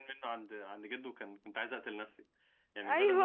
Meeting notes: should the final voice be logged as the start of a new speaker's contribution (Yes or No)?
Yes